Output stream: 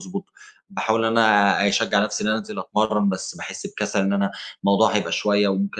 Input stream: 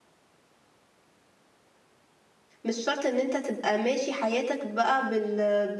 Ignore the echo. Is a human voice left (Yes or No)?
Yes